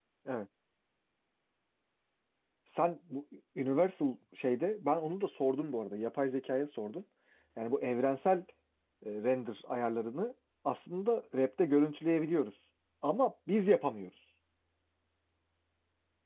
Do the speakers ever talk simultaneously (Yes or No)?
No